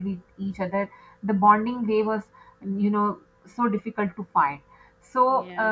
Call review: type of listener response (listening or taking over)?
listening